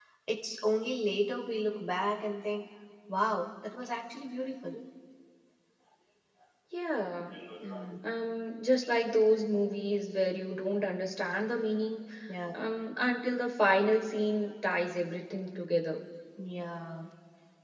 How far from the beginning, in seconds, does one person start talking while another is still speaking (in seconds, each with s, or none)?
none